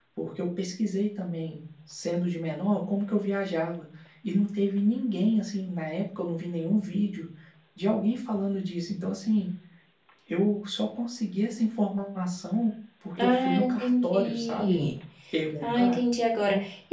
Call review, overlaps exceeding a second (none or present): present